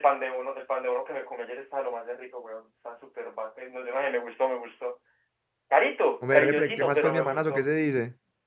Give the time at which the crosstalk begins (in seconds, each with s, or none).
6.3 s